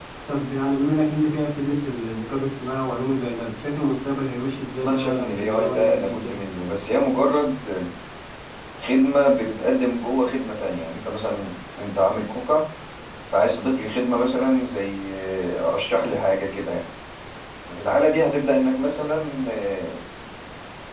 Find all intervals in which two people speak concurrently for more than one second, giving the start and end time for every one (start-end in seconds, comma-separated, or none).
4.8-6.4